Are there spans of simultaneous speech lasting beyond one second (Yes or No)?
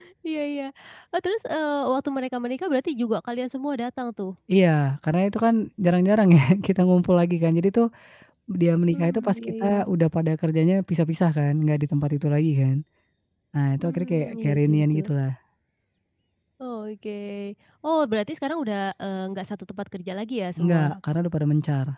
Yes